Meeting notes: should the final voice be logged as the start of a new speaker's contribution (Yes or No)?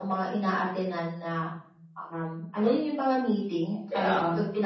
No